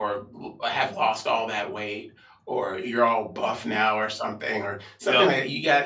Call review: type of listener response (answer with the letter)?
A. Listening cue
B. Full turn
A